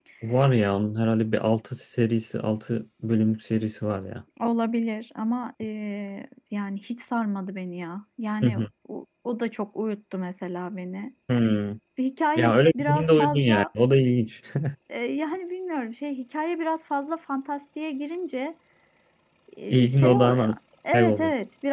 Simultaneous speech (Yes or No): Yes